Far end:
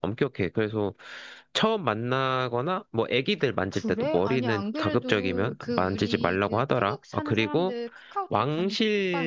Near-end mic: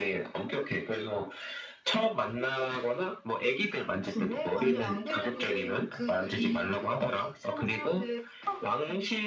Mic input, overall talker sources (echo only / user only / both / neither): echo only